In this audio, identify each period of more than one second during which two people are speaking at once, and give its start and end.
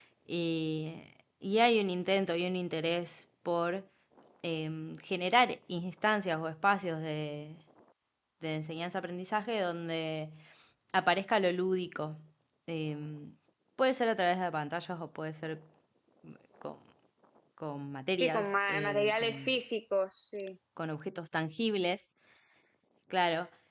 18.2-19.5

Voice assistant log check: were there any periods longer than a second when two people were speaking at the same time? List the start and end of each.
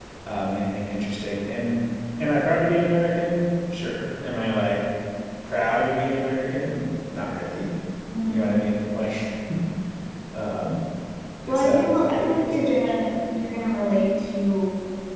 11.5-13.1

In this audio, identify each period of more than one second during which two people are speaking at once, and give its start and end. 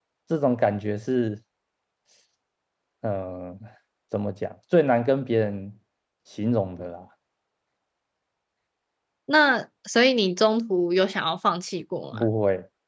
none

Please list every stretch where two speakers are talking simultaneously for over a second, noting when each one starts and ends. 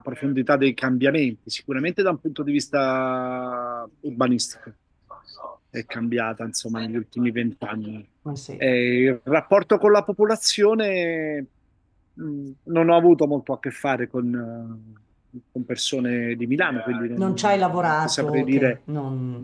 17.2-18.8

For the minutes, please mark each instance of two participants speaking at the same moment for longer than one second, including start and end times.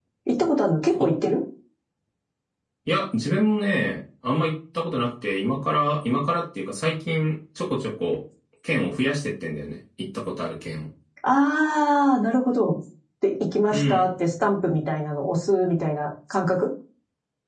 none

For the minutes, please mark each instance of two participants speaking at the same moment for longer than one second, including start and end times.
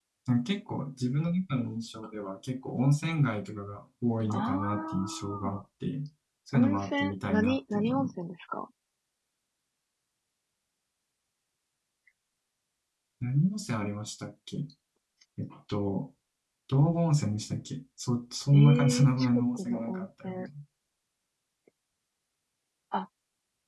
4.3-5.6, 6.5-8.1, 18.5-20.5

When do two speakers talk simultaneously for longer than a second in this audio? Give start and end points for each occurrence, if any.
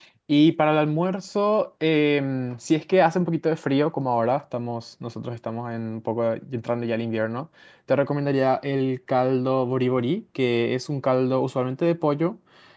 none

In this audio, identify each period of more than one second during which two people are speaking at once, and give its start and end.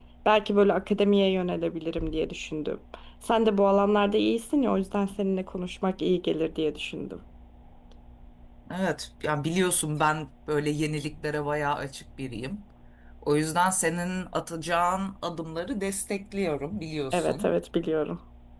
none

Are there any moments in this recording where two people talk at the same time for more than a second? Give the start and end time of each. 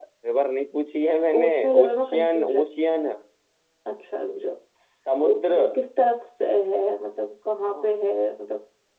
1.4-3.1

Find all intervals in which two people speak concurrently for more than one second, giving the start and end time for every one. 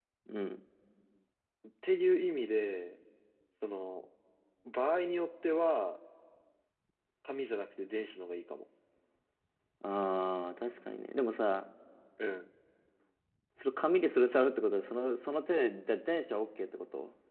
none

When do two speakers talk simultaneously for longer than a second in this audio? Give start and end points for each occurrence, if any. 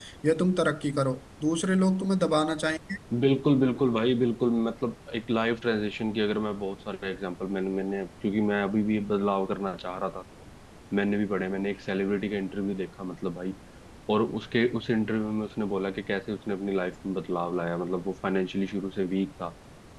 none

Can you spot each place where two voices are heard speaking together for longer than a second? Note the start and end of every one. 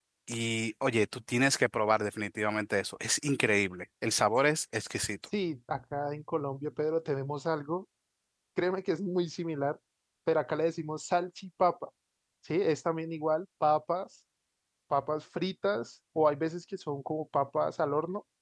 none

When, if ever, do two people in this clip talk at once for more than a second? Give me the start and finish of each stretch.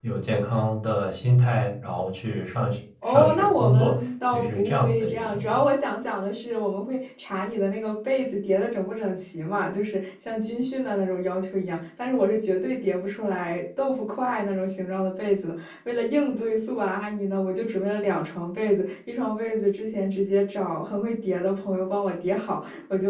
3.1-5.7

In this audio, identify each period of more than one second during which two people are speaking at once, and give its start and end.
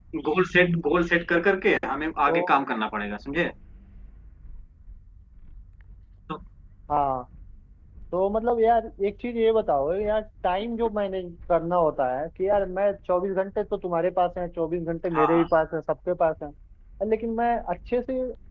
none

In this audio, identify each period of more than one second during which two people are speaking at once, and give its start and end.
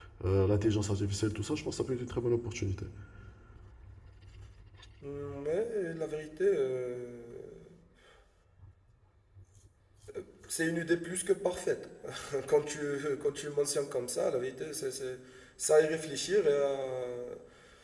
none

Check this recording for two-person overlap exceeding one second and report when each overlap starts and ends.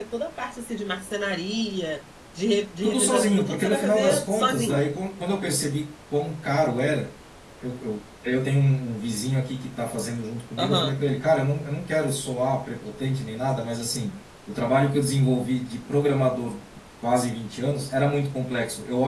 2.8-4.9

